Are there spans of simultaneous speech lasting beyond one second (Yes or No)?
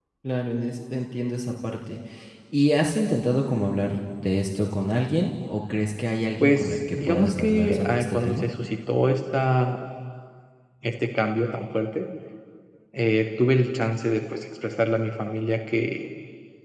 Yes